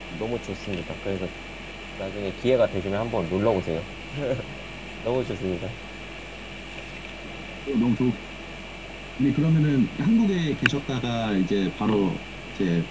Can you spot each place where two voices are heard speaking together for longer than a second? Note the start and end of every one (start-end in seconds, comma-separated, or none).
none